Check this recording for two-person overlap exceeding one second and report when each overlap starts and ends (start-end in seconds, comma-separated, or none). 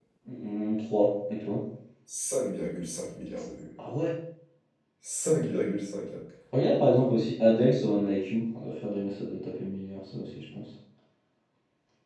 none